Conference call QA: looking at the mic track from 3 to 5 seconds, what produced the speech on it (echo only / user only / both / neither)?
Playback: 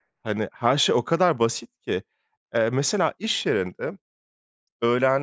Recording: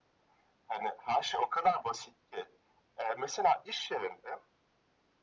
echo only